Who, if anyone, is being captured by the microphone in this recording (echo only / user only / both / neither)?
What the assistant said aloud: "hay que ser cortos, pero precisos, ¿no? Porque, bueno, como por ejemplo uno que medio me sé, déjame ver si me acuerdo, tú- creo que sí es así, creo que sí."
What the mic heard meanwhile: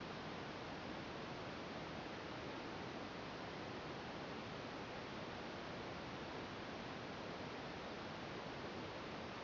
neither